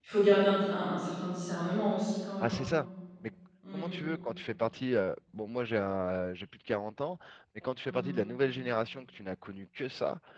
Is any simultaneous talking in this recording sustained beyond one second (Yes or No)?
No